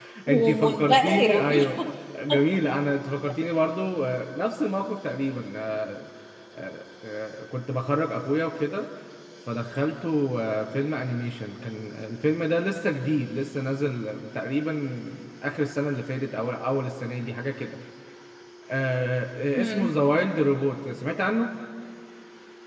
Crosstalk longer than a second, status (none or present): present